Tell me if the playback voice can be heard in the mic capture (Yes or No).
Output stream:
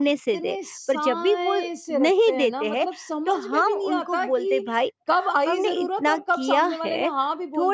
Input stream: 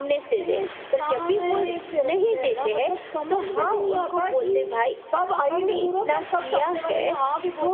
Yes